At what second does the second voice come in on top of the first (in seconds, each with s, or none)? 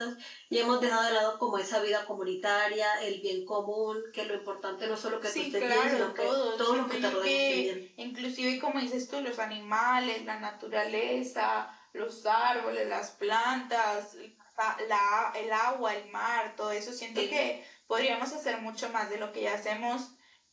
5.2 s